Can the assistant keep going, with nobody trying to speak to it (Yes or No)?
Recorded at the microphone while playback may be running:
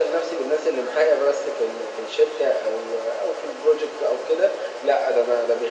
Yes